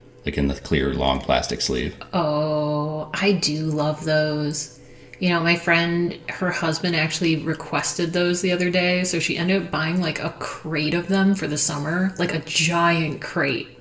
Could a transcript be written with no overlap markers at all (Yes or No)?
Yes